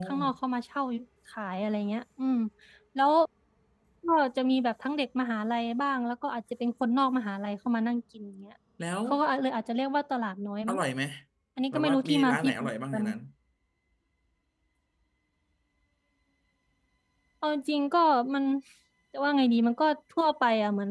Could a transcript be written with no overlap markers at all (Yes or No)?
No